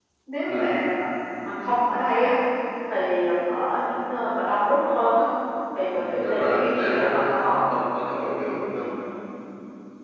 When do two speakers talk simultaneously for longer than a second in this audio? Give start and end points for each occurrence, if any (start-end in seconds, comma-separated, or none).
5.9-7.6